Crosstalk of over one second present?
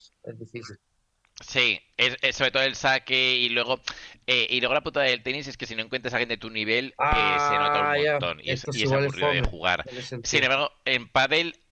Yes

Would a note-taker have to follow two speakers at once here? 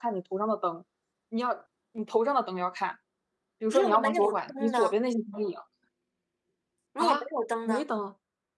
Yes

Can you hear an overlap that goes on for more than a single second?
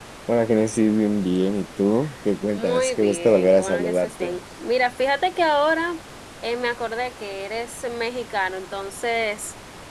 Yes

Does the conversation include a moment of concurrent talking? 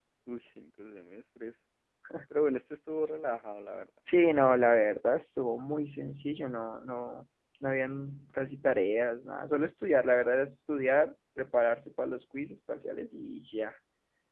No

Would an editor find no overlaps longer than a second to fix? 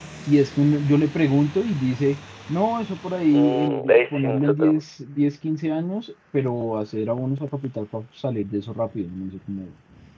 No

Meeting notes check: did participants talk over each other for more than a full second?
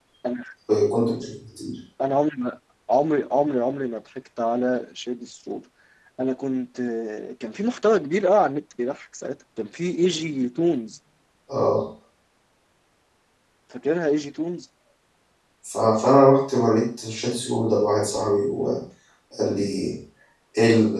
No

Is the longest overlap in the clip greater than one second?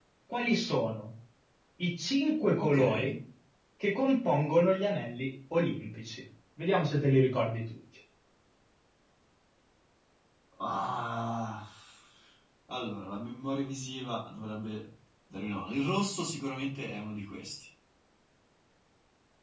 No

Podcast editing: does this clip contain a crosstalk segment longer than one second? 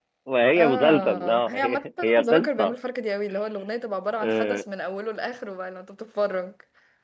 Yes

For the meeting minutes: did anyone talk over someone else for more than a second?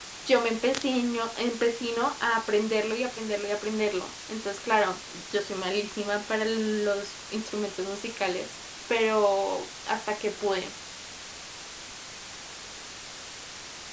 No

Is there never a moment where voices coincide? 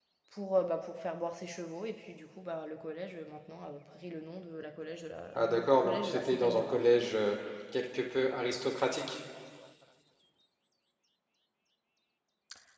No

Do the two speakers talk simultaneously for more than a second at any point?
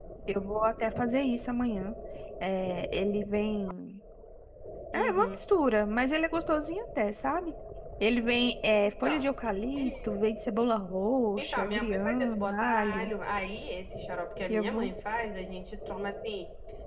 Yes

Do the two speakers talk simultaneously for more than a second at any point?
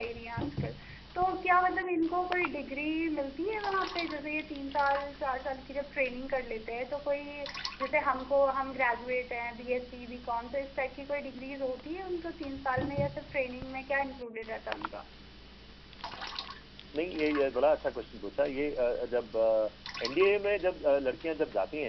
No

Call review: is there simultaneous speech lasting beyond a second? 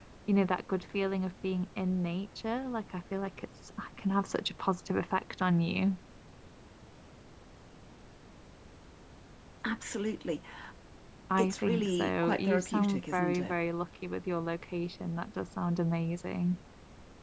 Yes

